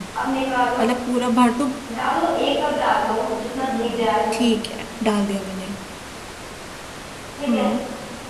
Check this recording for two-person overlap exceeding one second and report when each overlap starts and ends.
none

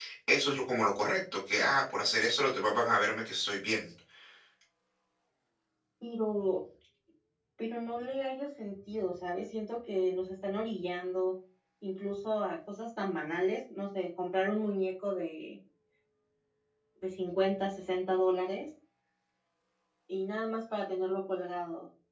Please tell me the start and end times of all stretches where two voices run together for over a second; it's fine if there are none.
none

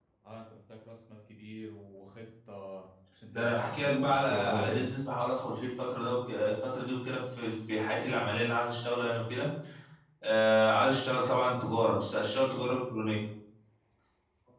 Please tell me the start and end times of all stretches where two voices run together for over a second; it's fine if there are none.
3.4-4.8

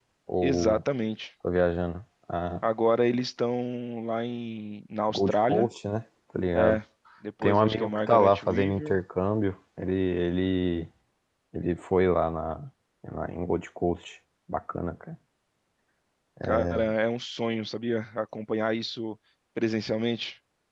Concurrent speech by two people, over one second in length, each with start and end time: 7.4-9.0

